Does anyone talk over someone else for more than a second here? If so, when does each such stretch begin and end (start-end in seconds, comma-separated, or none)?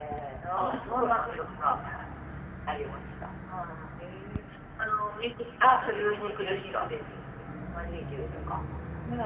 0.6-1.9, 5.6-6.9